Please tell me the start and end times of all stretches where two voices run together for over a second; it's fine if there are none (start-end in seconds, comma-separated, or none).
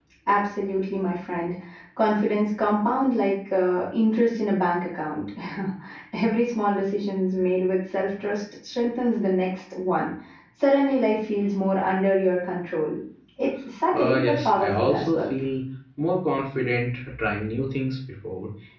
13.9-15.3